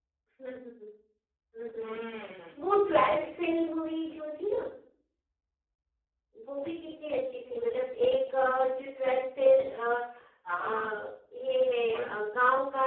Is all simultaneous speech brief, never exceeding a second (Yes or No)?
Yes